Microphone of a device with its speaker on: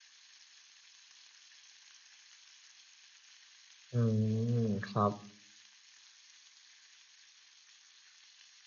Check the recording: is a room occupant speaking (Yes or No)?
Yes